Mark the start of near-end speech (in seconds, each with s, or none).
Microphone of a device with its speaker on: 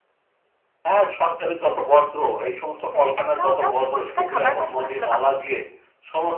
2.8 s